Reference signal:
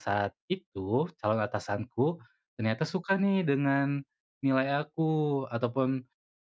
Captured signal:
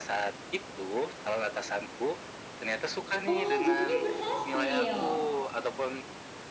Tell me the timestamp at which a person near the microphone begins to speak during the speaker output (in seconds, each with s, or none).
3.3 s